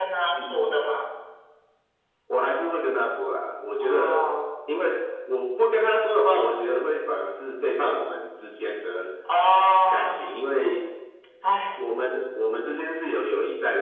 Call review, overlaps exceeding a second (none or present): none